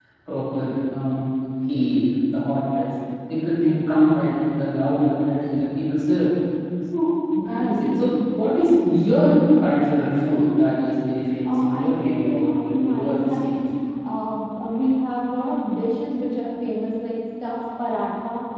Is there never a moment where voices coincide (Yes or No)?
No